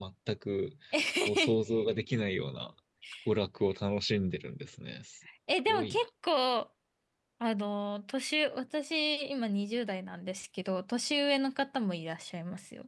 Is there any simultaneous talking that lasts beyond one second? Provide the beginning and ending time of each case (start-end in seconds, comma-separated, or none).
none